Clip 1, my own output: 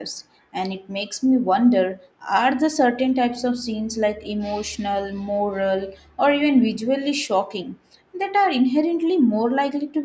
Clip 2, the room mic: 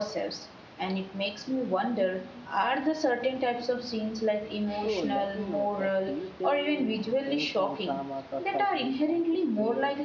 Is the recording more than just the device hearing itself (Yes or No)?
Yes